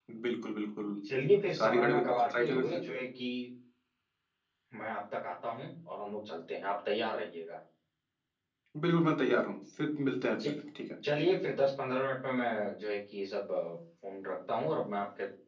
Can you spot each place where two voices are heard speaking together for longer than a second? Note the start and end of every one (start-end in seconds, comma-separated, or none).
1.5-2.8